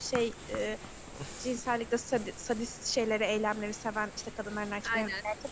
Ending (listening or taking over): listening